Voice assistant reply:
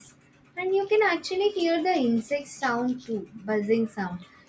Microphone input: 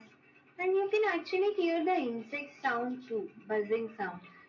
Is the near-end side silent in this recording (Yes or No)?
Yes